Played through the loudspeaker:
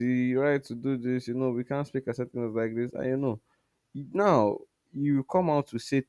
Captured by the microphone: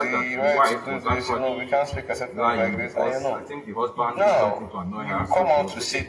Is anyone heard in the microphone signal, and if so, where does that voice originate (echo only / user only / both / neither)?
both